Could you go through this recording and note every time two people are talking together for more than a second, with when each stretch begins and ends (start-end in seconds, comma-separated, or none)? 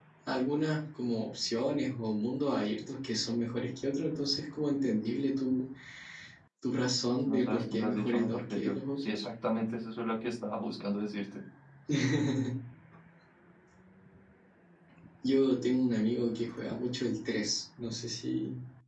7.3-9.2